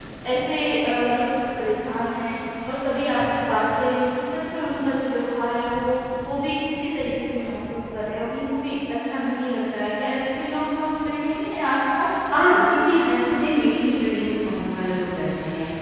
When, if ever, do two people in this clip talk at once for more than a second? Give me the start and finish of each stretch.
none

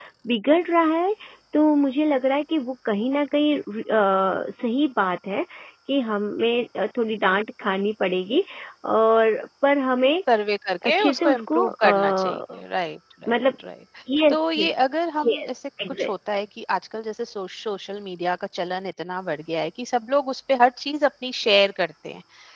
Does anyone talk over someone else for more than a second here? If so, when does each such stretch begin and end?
10.8-12.4

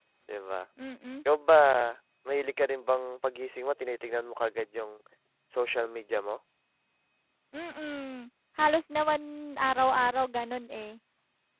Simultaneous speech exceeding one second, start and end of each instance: none

